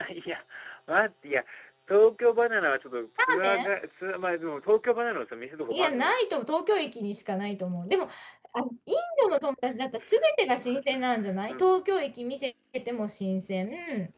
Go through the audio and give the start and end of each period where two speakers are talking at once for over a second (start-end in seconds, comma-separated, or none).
none